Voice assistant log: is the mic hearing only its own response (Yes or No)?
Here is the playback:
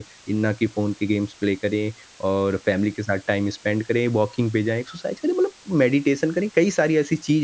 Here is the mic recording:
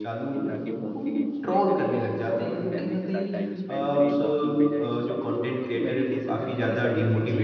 No